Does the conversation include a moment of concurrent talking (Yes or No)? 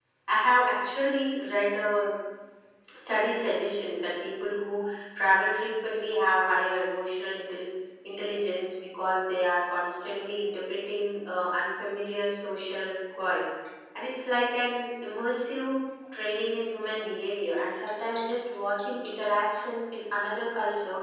No